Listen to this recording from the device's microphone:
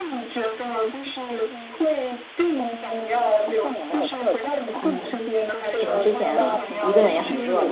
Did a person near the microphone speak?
Yes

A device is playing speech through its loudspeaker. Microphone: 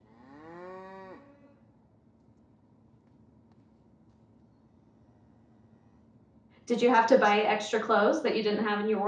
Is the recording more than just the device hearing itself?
Yes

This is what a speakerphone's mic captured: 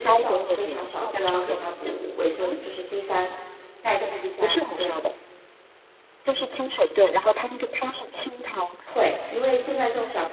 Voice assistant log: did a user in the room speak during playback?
Yes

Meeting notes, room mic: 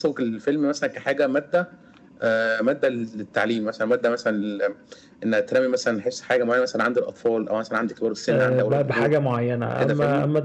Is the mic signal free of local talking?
No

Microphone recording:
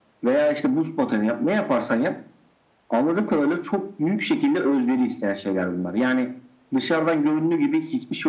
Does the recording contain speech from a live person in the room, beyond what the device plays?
No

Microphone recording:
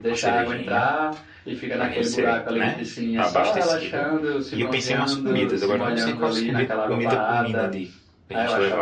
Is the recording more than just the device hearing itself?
Yes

